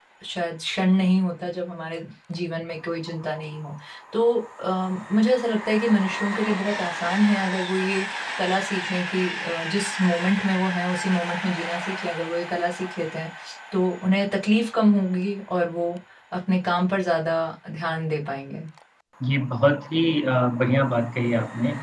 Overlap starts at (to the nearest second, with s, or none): none